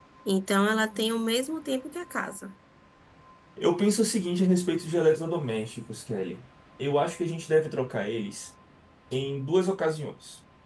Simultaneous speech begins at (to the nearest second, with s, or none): none